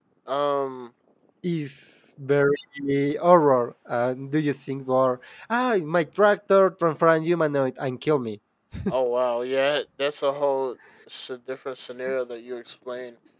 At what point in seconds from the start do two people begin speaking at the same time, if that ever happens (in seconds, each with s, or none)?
none